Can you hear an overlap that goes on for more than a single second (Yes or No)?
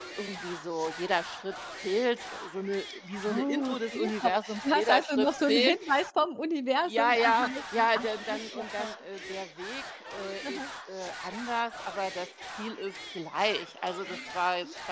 Yes